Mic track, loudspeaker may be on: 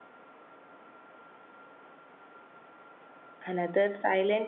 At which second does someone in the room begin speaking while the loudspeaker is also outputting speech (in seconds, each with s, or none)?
3.5 s